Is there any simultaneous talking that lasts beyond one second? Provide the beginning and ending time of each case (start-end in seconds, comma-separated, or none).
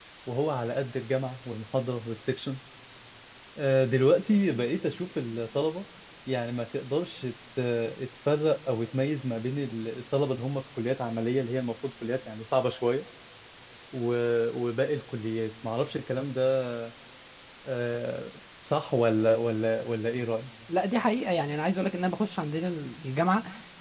none